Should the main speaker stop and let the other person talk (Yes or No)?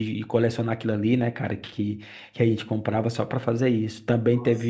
No